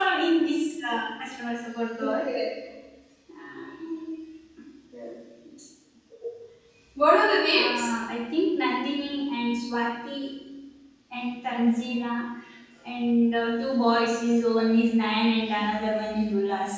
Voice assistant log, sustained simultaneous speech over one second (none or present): none